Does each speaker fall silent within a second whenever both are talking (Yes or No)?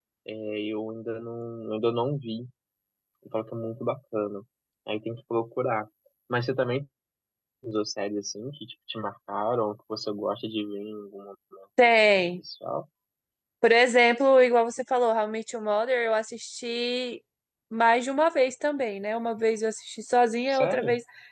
Yes